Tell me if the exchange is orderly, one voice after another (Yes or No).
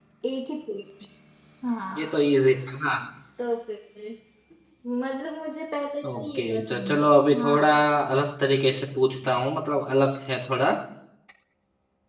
No